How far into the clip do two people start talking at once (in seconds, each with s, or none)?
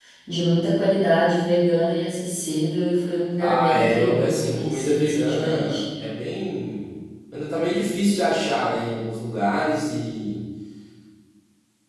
3.4 s